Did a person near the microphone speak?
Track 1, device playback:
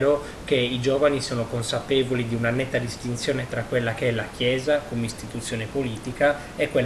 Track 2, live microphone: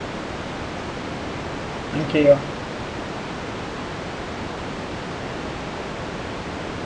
Yes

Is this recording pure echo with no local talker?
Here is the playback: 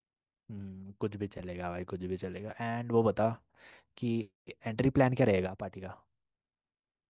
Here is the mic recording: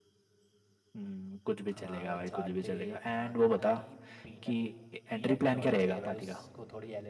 No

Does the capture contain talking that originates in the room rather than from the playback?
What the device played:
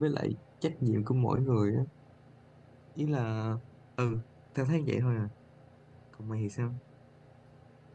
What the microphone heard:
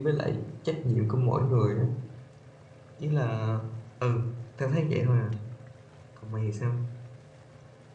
No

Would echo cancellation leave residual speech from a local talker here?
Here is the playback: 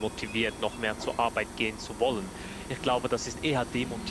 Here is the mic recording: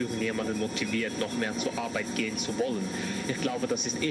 No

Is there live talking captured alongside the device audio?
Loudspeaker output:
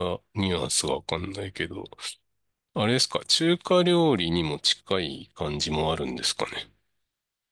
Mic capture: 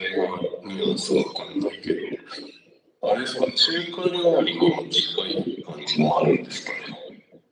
No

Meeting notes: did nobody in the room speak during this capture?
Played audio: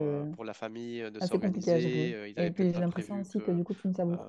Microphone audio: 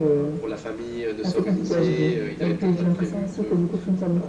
Yes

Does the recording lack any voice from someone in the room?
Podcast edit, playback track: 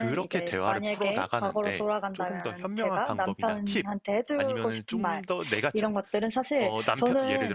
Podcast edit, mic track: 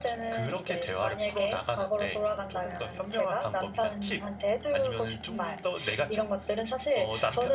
Yes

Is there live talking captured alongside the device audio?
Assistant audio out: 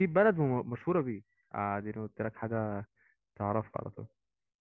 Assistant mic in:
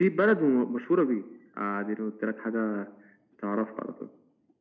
No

